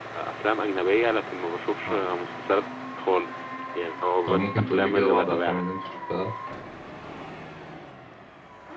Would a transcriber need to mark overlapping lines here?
Yes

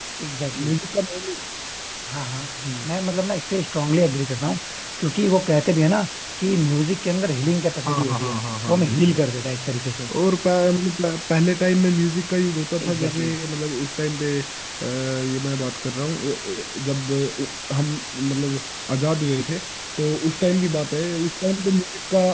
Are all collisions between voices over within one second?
Yes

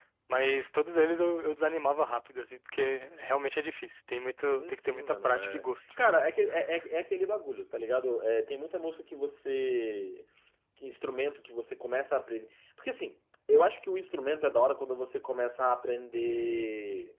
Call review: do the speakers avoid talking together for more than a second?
No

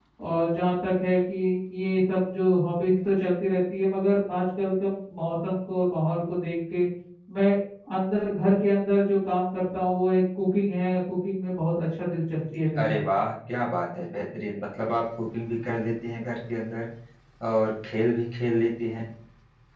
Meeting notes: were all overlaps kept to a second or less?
Yes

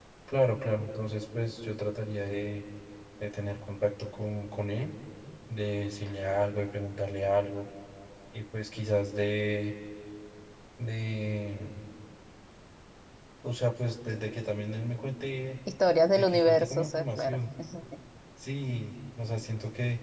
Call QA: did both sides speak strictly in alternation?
No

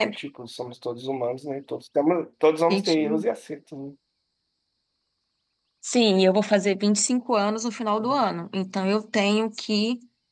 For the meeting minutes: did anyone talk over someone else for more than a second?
No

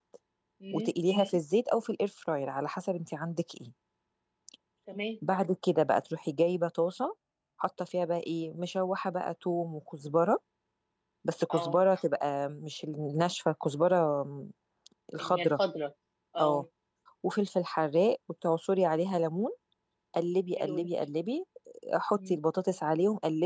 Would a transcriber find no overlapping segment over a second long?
Yes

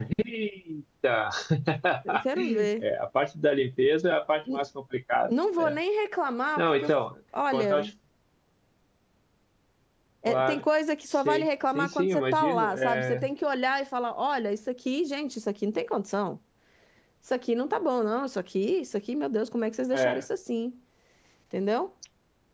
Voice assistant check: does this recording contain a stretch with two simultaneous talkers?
Yes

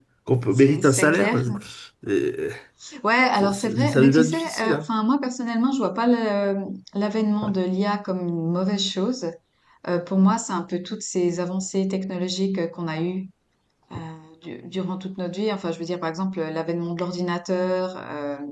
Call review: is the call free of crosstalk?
No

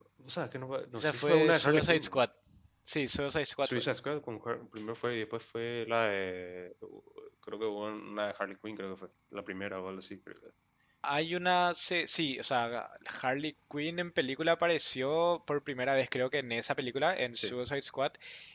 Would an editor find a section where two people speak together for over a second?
Yes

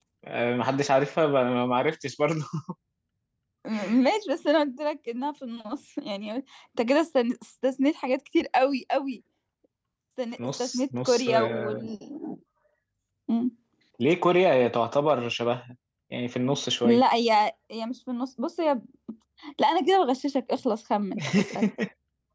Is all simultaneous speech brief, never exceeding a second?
No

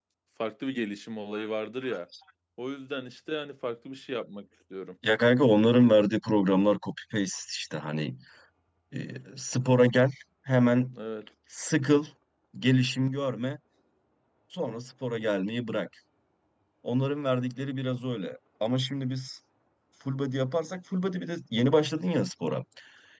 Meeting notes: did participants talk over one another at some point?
No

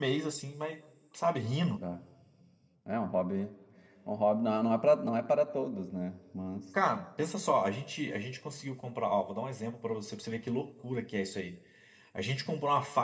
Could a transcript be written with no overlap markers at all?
Yes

